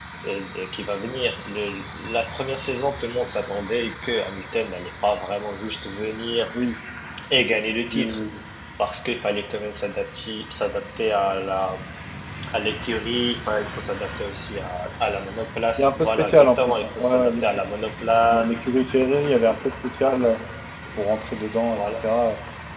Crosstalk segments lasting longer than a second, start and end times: 15.8-17.6

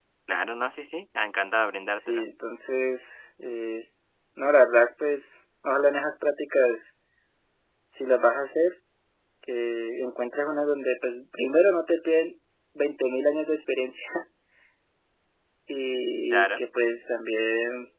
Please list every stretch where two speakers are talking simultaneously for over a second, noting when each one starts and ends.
none

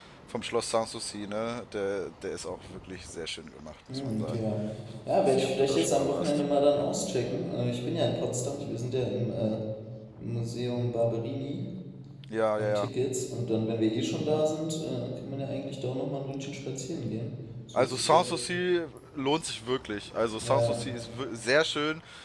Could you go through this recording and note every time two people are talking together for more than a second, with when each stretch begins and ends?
5.2-6.4

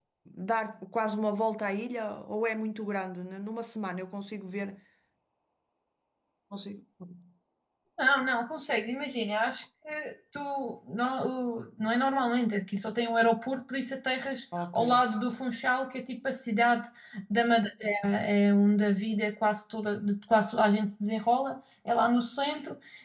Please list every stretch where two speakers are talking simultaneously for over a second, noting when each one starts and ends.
none

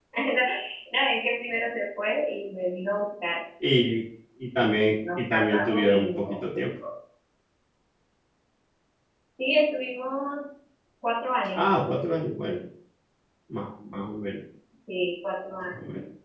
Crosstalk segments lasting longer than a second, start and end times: 5.2-6.4

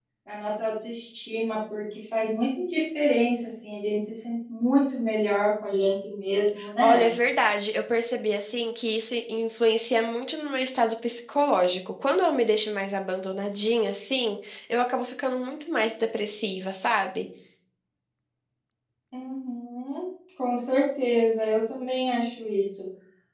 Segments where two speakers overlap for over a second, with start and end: none

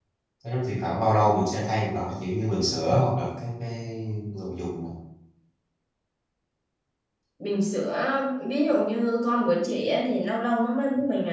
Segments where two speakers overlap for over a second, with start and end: none

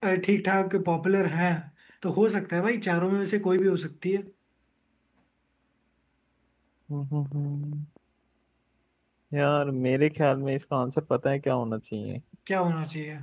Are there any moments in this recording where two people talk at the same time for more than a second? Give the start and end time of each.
none

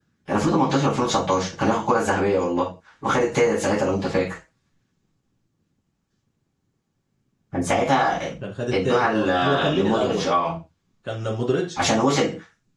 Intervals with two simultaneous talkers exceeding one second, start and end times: 8.7-10.2

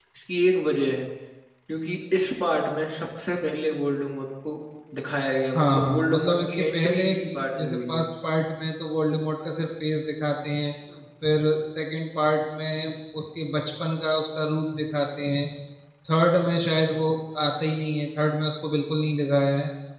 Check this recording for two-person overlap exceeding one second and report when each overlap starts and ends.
5.5-7.1

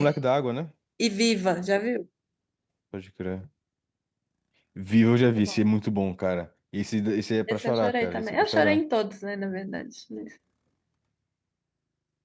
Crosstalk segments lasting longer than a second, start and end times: 7.5-8.8

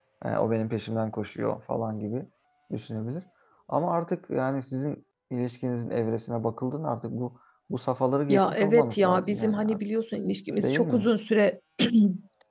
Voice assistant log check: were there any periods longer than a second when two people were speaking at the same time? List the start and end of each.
8.3-9.8

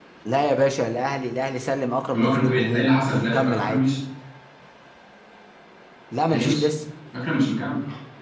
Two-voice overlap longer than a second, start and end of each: 2.1-3.8

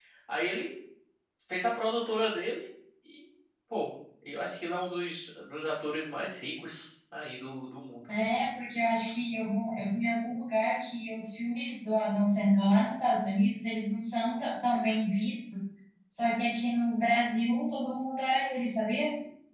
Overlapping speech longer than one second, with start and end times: none

